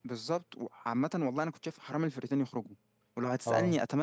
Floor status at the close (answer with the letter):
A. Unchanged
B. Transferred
A